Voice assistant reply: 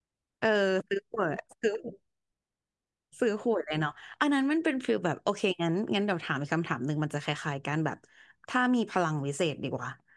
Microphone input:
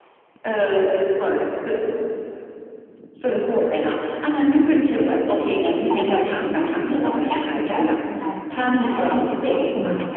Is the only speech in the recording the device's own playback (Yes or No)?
No